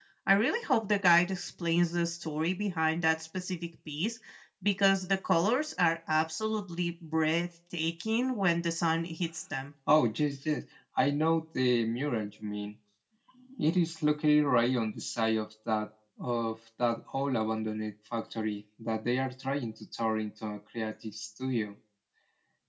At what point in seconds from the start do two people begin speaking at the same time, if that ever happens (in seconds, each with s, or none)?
none